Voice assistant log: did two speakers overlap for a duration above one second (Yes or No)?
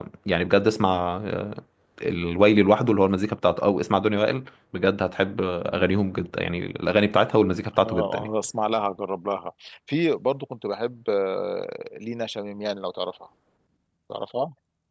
No